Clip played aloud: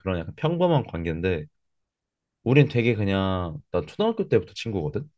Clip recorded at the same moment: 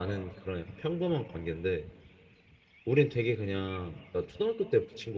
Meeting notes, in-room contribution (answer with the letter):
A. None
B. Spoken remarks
A